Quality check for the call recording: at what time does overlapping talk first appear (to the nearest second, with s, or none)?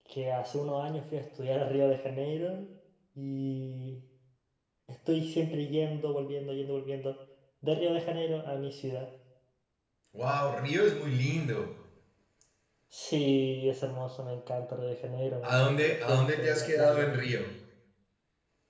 15 s